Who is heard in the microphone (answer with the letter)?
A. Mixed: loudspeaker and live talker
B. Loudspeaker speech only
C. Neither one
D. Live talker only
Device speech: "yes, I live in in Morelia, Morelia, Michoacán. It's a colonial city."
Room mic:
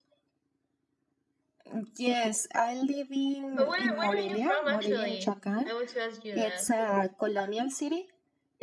A